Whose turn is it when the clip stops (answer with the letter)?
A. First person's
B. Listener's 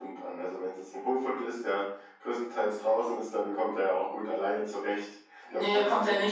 B